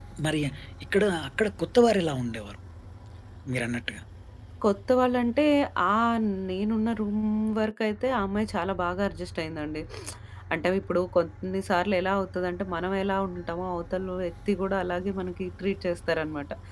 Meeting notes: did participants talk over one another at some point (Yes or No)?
No